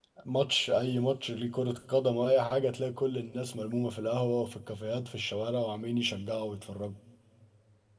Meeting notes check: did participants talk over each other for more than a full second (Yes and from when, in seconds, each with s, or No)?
No